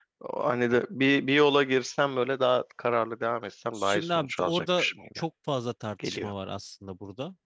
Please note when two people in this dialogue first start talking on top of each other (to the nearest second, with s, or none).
4 s